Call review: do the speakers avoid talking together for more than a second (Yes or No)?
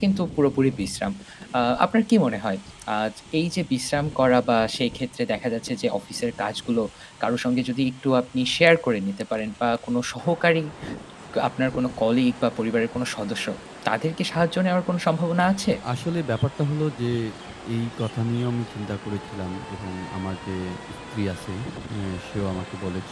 Yes